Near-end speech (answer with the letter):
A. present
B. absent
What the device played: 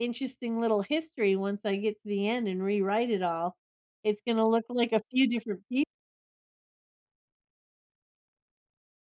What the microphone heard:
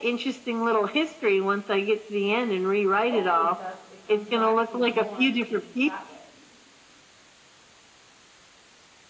A